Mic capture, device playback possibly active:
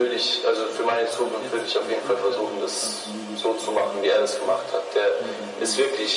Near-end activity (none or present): present